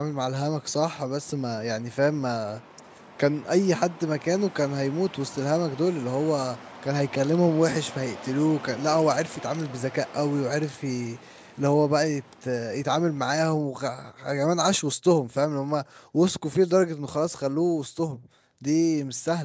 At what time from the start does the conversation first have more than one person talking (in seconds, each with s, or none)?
none